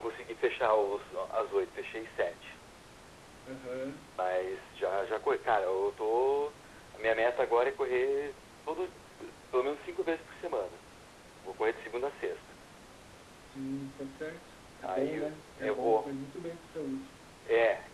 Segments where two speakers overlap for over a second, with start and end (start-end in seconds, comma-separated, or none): 14.8-16.1